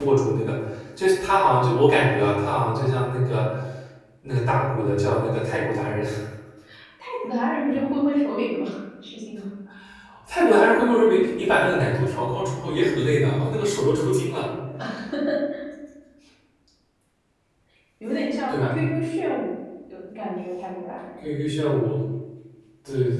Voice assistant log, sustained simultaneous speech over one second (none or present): none